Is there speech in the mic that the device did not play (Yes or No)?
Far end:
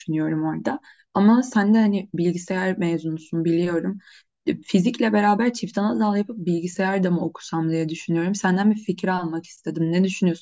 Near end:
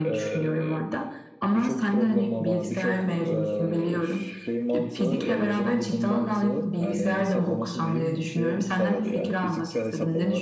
Yes